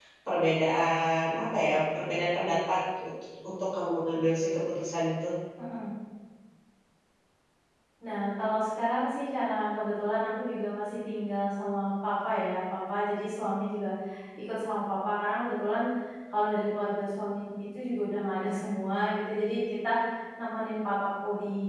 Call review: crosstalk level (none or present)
none